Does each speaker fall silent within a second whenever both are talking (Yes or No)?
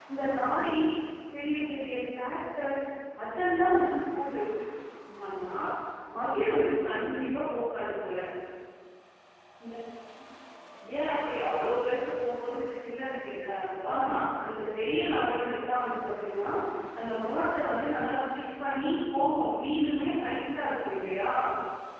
Yes